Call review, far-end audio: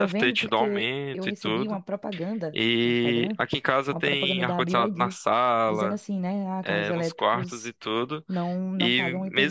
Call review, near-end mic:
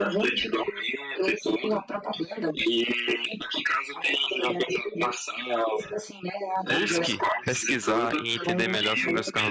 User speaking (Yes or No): Yes